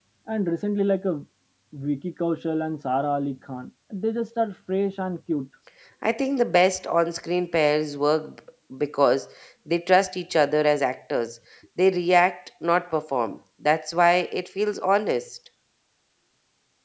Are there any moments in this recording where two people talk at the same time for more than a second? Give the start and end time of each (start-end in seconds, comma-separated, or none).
none